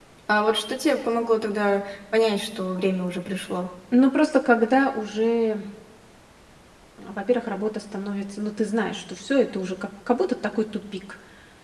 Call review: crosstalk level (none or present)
none